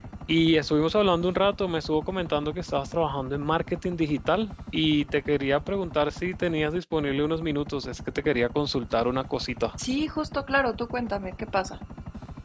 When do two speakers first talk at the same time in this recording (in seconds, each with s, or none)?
none